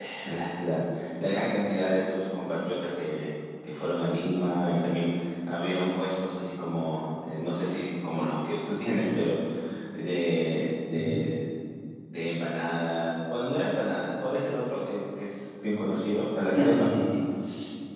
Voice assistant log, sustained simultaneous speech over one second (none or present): none